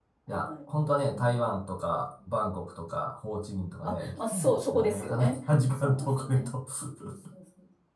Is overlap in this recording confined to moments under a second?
No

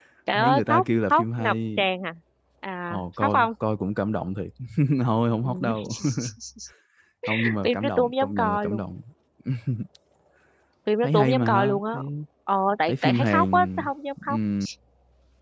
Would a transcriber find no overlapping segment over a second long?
No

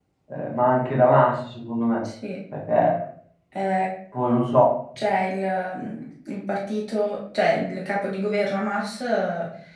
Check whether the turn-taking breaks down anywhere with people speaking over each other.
No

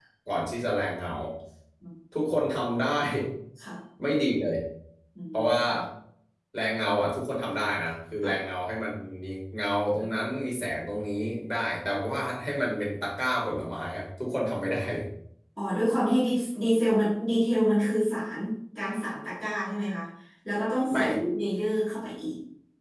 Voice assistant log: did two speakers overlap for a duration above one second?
No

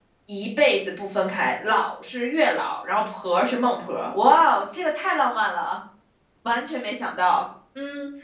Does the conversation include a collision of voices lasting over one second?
No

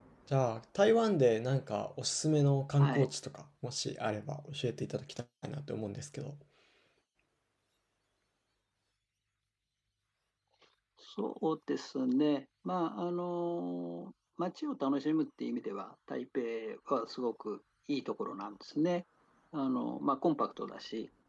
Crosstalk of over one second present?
No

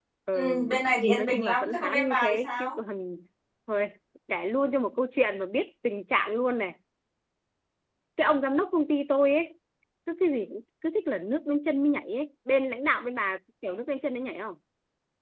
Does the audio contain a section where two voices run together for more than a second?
Yes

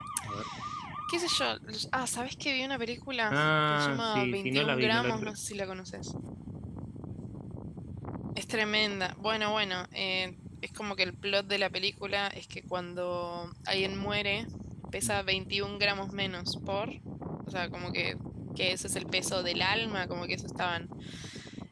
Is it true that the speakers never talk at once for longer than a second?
No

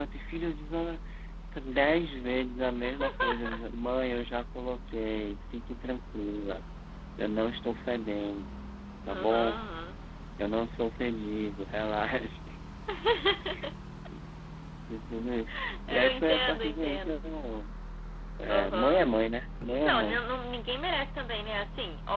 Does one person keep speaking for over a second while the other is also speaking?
Yes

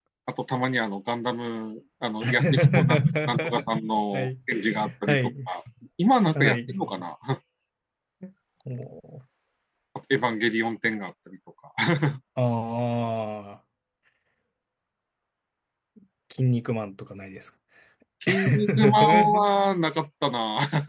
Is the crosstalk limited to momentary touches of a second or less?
No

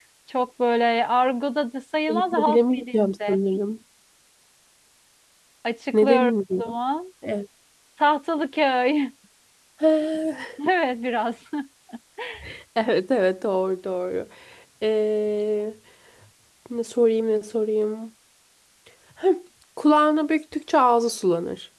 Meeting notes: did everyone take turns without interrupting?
No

